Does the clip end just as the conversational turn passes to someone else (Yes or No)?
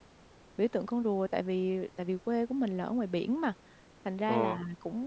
No